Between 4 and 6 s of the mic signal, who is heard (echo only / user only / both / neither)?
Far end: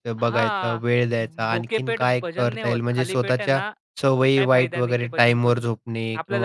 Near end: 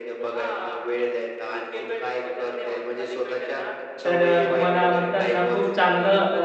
both